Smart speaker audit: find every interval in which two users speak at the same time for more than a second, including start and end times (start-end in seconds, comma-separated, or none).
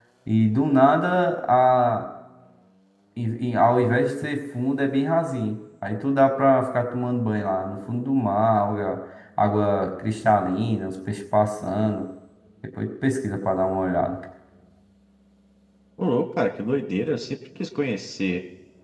none